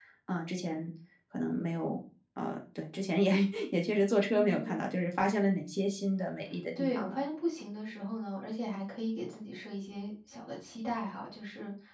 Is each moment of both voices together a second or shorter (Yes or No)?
Yes